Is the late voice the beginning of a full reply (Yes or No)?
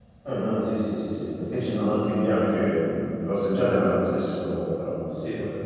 Yes